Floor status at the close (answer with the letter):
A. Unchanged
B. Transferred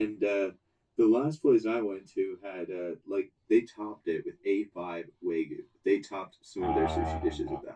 A